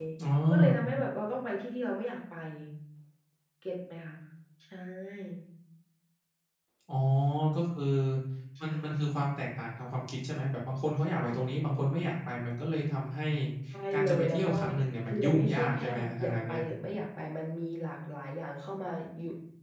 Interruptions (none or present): present